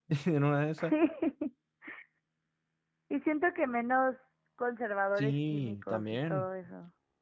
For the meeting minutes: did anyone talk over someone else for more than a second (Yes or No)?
Yes